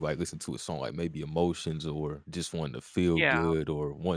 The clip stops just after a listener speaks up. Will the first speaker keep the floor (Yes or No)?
Yes